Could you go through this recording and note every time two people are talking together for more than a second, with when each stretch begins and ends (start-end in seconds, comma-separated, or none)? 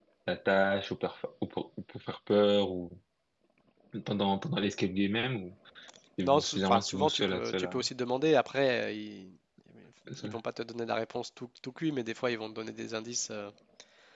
6.2-7.8